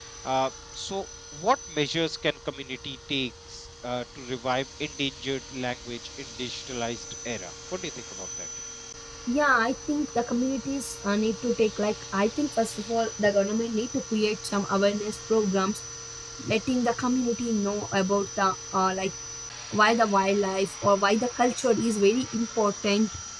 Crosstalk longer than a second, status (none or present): none